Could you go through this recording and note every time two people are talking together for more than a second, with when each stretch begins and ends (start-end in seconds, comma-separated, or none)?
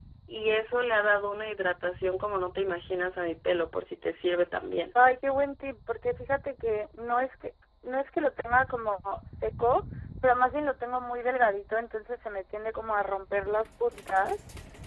none